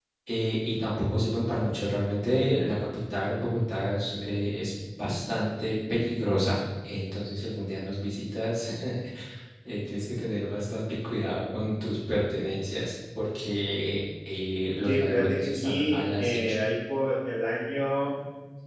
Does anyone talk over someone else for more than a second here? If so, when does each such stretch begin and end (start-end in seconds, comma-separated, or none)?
14.8-16.6